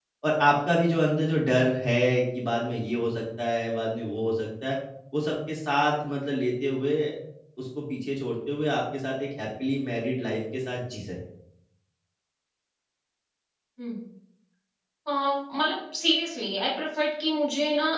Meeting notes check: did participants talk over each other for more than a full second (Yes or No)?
No